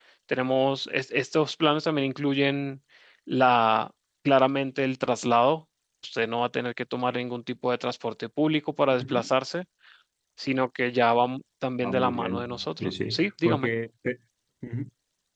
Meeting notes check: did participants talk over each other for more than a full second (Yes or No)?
Yes